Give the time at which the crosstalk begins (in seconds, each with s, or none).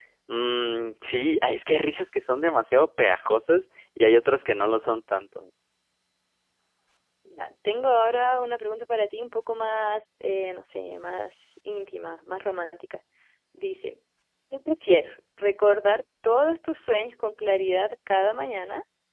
none